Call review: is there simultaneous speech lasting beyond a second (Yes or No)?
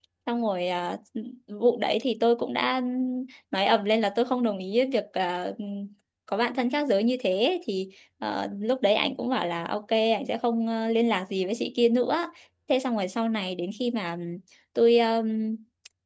No